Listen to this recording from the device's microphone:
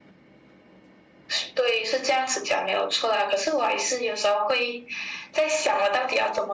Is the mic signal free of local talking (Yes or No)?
Yes